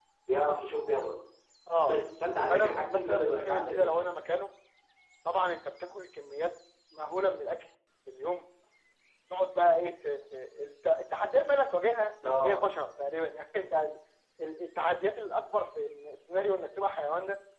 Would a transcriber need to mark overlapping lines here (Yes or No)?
Yes